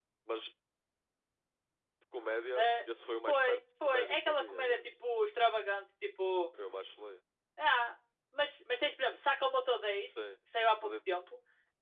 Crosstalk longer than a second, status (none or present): present